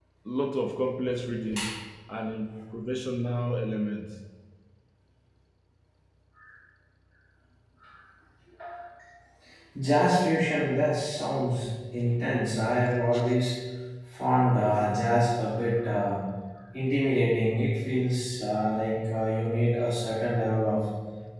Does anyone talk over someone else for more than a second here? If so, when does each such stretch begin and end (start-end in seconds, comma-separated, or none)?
none